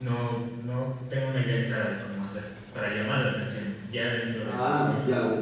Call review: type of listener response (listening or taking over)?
taking over